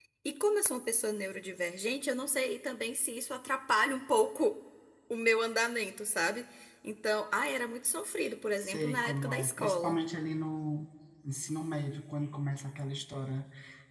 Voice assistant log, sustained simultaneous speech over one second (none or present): present